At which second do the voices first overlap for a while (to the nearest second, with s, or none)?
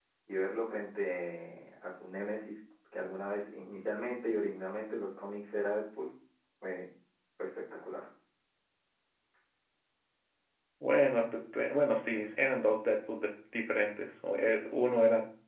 none